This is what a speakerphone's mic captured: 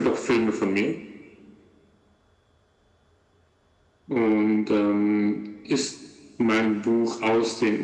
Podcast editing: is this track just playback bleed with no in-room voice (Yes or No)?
Yes